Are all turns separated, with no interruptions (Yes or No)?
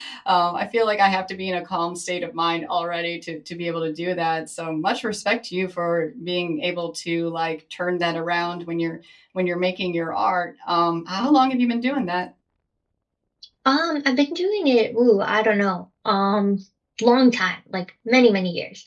Yes